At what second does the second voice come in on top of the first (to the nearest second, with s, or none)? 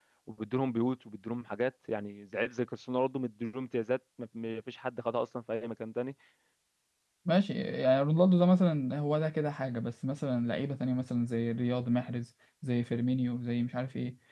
none